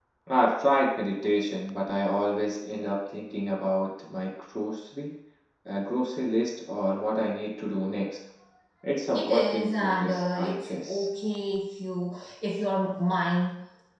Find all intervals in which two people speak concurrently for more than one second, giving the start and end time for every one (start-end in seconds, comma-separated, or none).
9.1-11.1